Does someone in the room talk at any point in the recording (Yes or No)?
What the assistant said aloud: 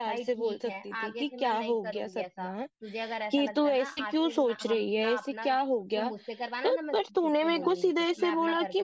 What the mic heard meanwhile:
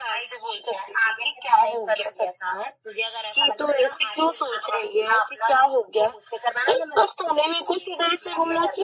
No